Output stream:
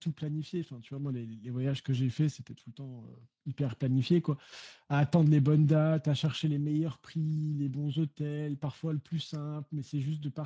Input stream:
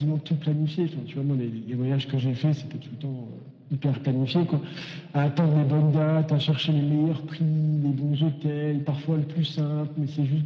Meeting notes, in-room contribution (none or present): none